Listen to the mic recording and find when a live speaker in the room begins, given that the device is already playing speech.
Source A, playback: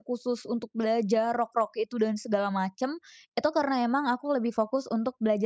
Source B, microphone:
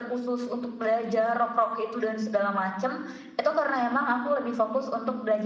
none

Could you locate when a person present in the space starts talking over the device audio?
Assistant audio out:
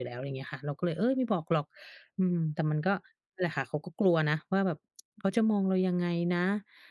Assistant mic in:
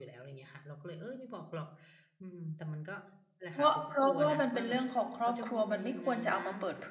3.5 s

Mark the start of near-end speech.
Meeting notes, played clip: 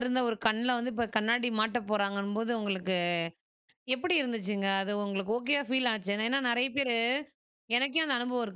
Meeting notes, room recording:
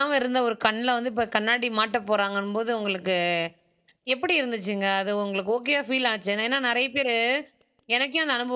none

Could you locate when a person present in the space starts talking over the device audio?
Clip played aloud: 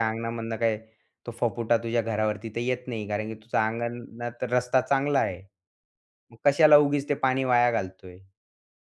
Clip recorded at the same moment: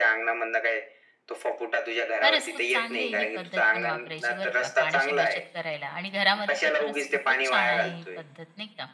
2.2 s

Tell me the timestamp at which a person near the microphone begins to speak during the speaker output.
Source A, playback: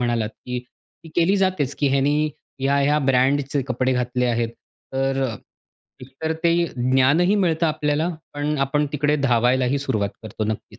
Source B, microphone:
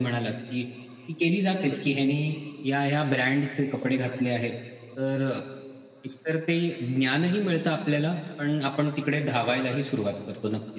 none

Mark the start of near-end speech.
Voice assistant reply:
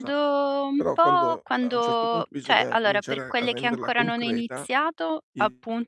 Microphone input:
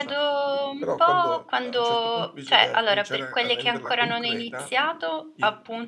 none

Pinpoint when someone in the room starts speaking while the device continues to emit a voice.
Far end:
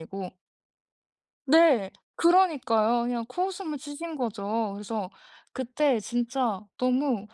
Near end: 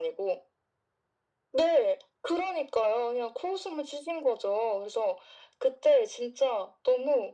none

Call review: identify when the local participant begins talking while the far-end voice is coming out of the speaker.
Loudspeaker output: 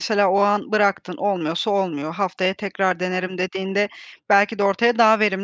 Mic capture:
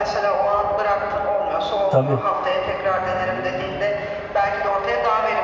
1.9 s

